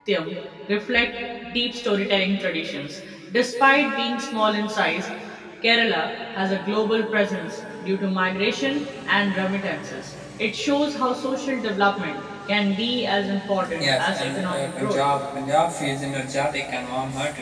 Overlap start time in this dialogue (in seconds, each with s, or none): 13.6 s